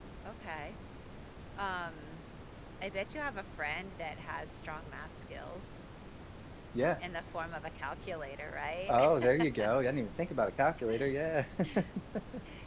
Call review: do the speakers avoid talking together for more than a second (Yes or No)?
Yes